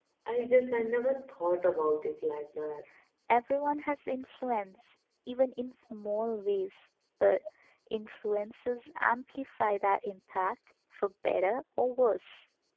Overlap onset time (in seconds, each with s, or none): none